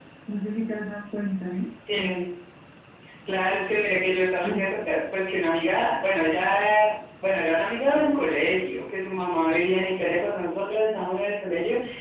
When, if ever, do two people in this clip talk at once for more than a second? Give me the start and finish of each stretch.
none

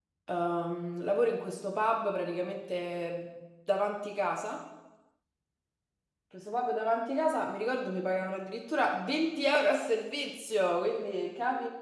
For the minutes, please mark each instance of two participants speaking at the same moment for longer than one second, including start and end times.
none

